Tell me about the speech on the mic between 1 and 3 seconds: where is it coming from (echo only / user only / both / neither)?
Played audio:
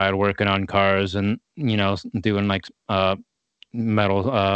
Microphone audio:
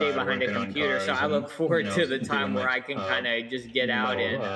both